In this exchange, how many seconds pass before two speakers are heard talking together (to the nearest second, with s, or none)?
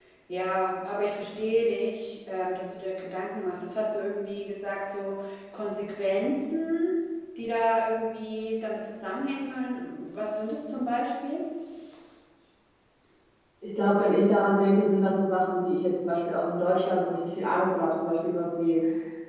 none